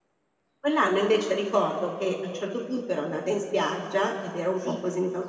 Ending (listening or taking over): listening